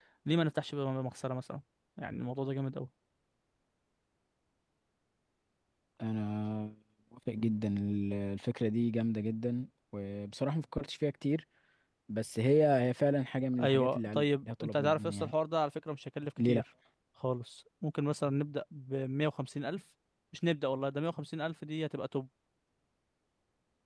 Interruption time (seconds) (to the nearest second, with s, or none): 14 s